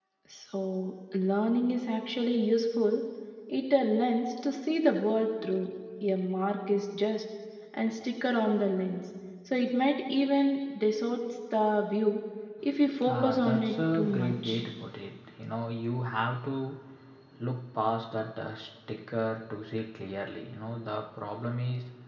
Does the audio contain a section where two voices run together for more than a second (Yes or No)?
Yes